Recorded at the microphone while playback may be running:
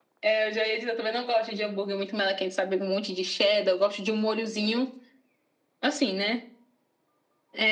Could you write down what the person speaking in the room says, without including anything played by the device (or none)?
none